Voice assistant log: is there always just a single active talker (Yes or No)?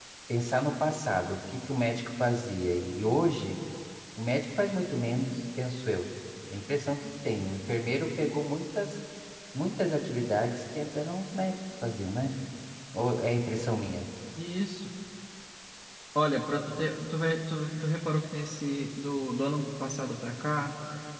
Yes